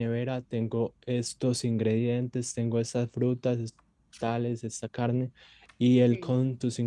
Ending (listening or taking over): listening